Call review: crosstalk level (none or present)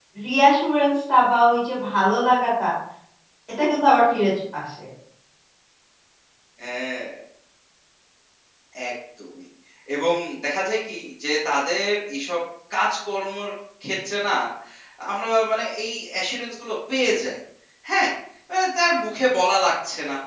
none